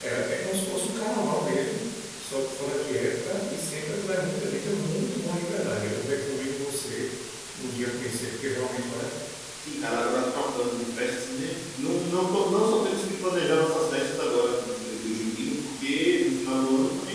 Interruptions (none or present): none